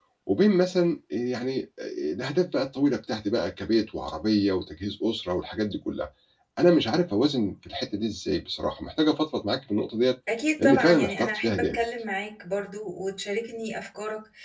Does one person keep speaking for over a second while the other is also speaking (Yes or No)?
Yes